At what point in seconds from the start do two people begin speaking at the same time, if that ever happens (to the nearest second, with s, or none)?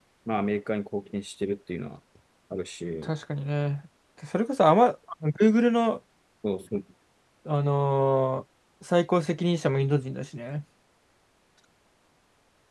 none